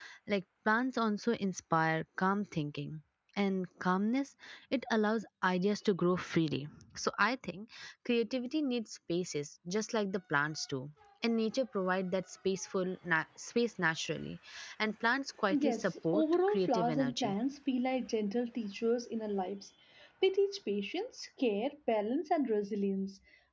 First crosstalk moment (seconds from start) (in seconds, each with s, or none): 15.6 s